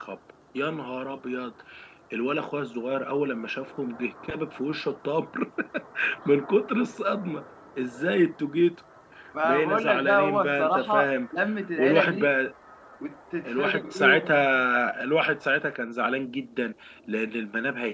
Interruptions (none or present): present